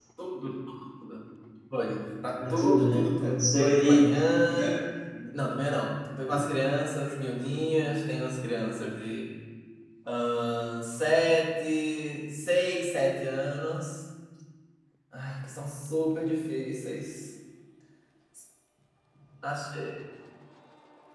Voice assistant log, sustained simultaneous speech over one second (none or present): present